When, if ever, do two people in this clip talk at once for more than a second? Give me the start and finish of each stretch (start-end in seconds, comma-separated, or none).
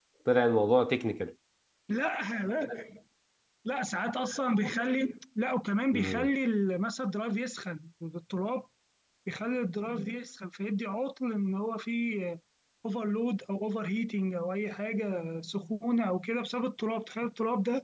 none